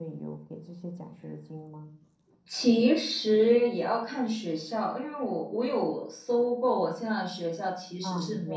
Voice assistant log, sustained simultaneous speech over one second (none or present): none